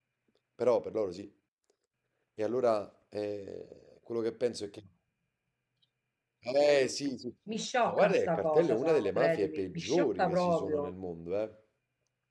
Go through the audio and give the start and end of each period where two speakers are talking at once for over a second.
7.9-10.9

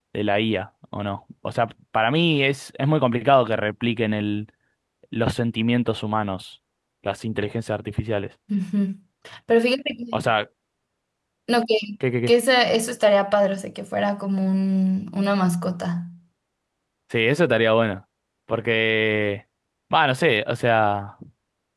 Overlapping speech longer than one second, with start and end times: none

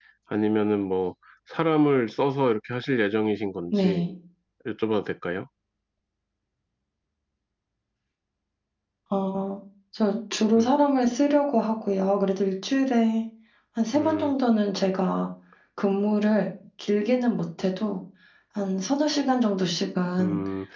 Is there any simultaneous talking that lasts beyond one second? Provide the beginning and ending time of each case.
none

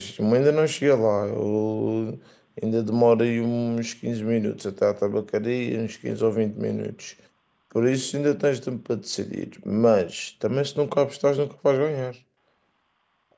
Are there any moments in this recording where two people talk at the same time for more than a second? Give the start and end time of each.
none

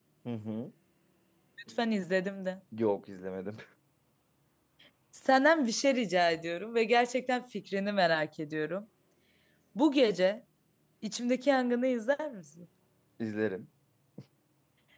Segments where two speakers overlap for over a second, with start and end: none

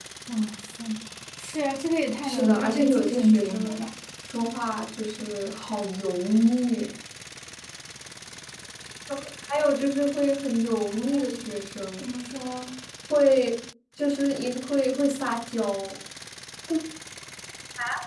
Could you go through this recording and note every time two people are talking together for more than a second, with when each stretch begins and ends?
2.2-3.9

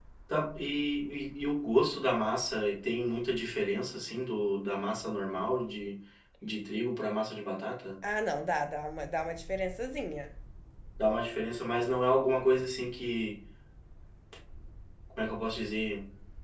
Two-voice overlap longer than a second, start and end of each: none

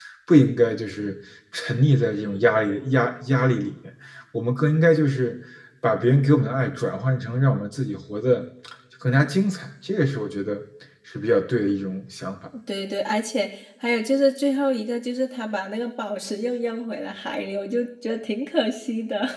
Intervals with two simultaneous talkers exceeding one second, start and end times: none

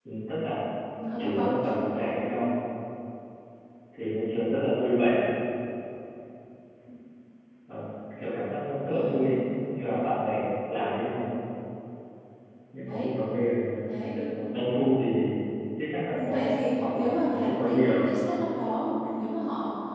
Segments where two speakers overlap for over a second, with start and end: 16.2-18.1

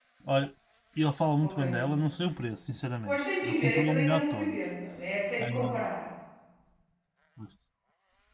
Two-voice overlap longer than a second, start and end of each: 3.0-4.6

